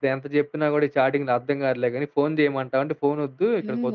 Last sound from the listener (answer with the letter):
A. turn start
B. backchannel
A